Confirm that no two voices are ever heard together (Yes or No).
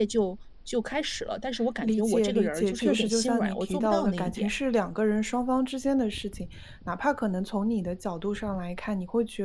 No